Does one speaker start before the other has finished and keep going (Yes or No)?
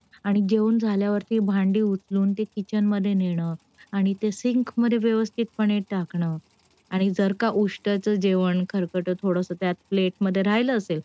No